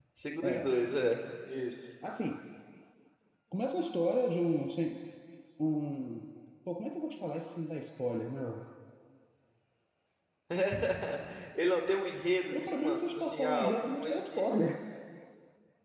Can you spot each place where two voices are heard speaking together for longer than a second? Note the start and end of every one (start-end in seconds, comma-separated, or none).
12.5-14.5